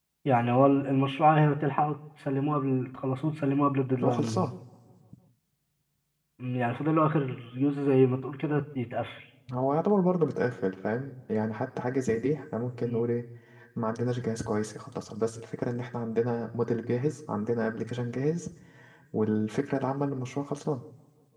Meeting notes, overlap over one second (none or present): none